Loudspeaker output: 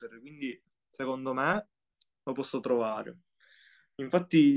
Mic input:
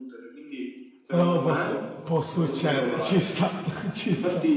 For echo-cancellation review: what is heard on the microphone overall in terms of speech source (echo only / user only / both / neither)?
both